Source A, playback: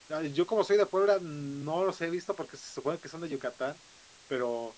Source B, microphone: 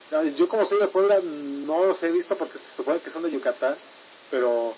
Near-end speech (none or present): none